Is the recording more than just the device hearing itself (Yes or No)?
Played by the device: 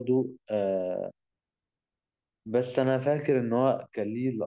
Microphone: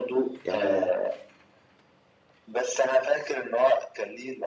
Yes